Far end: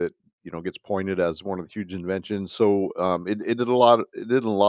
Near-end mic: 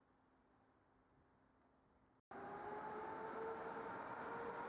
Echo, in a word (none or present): none